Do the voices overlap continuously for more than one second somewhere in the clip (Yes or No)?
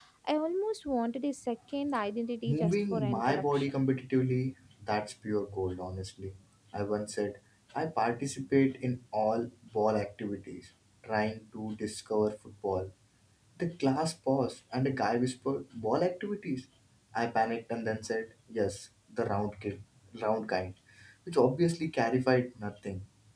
Yes